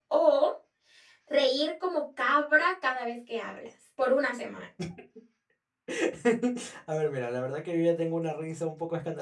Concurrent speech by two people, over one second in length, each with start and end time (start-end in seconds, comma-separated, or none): none